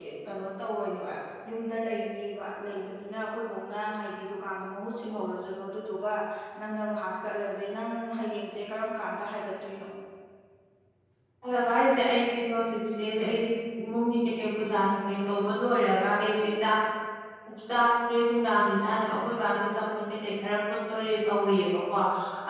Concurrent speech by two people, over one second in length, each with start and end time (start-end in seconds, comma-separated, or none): none